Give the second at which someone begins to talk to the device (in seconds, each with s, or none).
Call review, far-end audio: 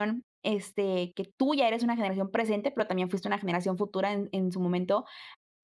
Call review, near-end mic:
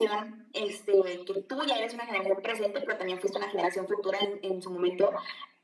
none